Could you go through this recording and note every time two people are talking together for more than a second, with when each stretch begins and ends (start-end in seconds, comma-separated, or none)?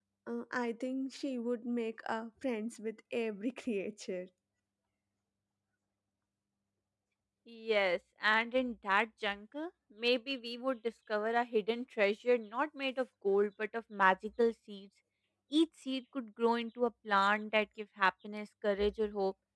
none